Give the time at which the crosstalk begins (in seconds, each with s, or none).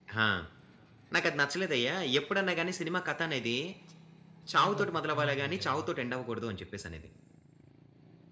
4.5 s